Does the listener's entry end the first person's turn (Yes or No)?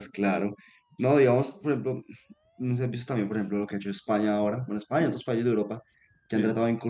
No